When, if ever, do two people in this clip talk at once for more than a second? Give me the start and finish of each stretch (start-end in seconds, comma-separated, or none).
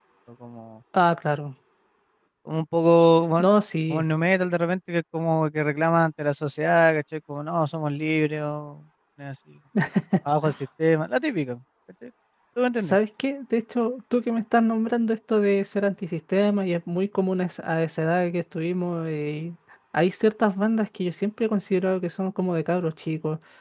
none